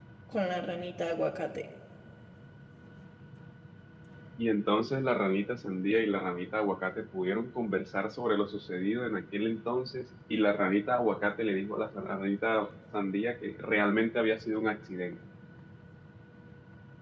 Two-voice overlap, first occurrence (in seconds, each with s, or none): none